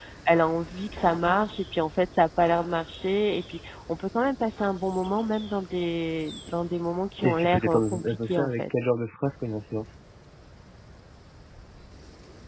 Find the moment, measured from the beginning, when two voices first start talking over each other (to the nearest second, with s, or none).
7 s